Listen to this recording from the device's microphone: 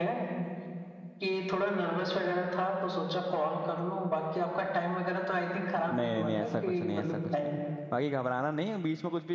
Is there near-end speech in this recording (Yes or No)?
Yes